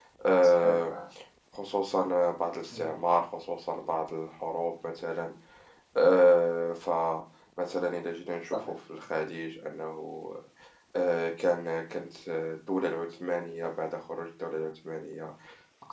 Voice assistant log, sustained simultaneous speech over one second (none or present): none